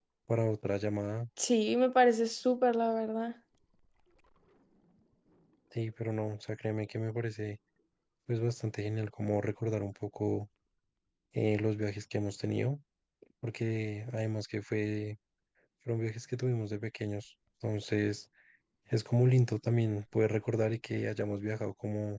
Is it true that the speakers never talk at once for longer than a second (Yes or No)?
Yes